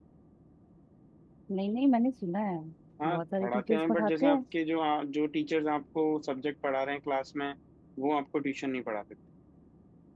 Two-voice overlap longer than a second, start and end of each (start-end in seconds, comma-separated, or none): 3.0-4.4